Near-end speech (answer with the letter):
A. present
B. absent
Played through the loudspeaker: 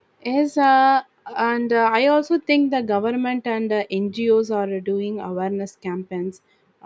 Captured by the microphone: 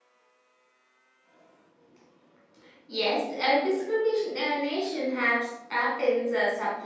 A